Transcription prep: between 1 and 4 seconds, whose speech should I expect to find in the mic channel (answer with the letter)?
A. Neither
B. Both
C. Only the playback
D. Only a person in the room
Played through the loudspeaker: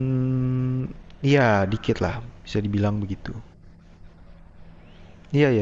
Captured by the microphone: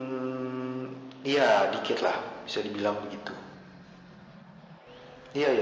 C